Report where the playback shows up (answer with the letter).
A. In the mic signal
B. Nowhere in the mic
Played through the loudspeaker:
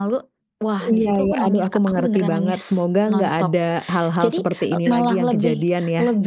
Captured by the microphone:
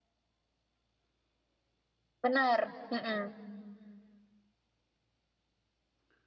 B